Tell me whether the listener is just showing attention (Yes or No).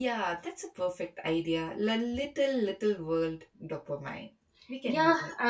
No